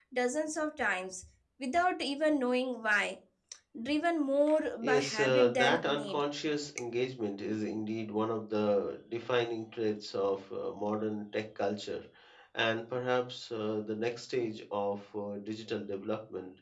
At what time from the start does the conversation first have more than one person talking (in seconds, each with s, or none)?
4.8 s